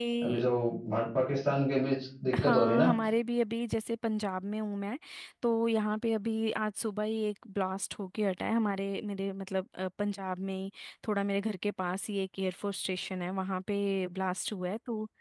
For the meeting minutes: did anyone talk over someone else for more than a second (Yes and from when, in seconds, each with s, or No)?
No